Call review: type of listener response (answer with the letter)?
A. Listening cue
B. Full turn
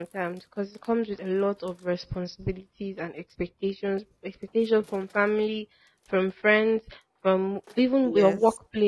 A